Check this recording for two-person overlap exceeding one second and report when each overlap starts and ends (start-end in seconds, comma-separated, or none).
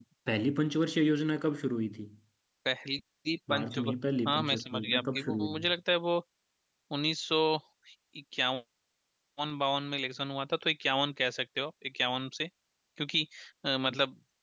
4.3-5.7